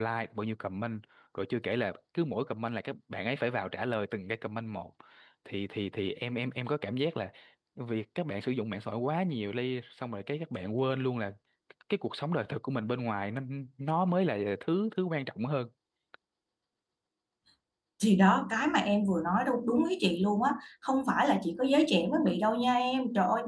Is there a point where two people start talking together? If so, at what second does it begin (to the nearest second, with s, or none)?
none